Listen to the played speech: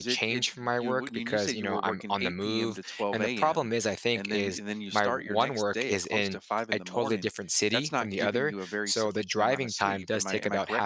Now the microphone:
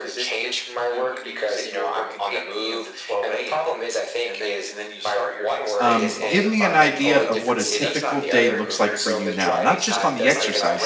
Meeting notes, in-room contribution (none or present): present